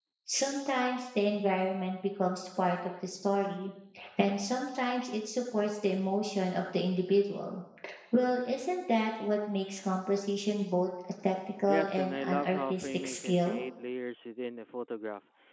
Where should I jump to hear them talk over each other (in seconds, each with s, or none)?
11.7 s